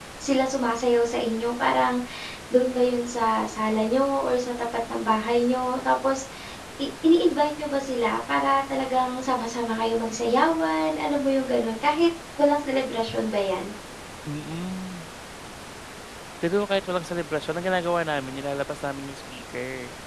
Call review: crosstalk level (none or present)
none